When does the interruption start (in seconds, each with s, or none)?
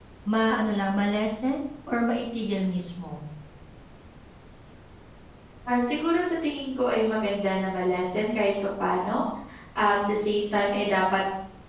none